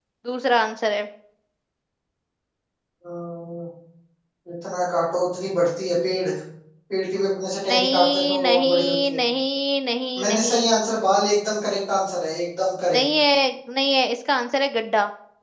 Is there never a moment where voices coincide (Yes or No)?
No